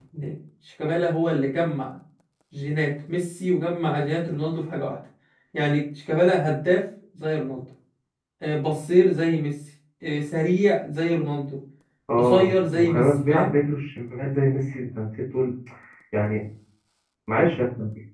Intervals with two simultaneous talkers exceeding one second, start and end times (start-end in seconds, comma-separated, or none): 12.2-13.5